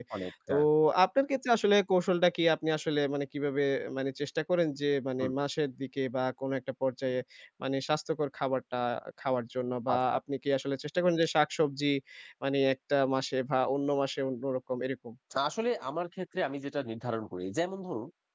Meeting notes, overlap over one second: none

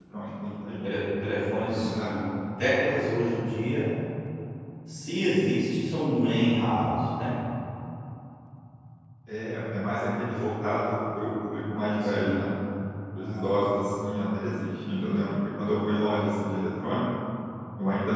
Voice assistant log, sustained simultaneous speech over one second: none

